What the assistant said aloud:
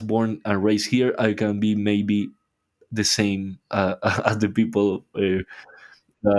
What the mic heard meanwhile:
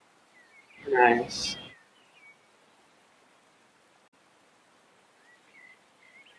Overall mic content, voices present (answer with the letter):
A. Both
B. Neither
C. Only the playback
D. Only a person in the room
D